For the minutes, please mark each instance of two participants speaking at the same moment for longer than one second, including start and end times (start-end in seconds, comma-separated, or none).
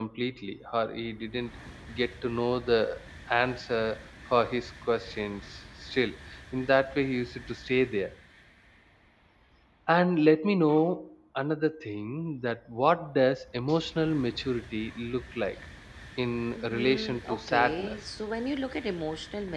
16.6-18.0